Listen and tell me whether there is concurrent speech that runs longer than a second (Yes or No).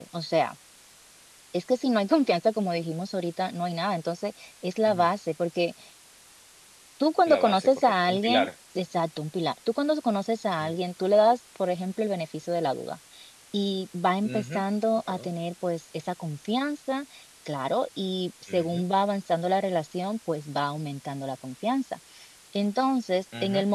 Yes